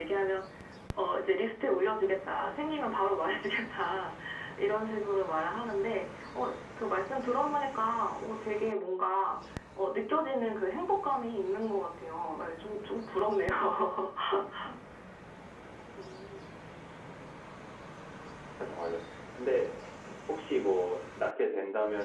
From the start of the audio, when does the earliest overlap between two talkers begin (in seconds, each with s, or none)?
none